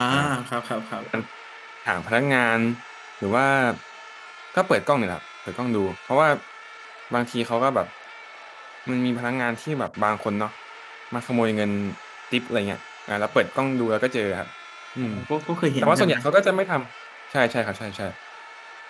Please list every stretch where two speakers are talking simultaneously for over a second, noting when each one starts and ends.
none

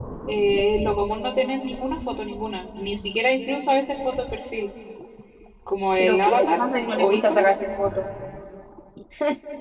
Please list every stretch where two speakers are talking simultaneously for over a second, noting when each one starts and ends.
6.0-7.5

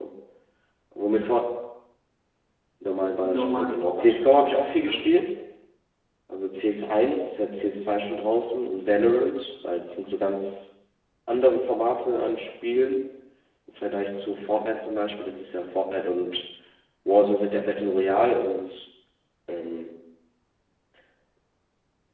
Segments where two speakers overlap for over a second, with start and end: 3.2-5.1

